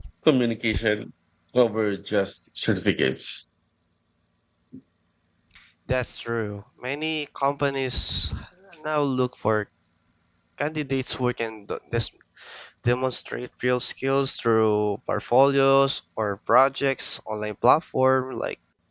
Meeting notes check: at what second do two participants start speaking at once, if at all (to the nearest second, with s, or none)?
none